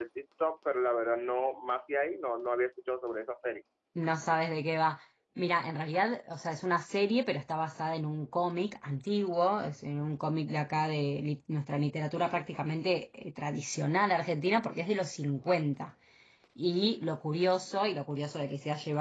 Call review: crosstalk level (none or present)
none